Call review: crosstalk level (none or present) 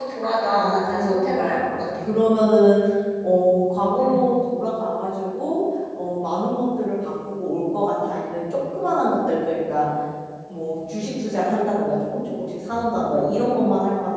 present